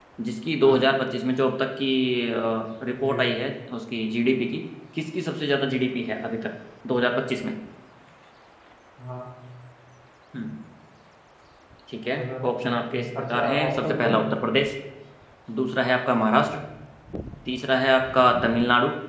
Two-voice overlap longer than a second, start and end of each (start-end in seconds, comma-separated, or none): 12.1-14.1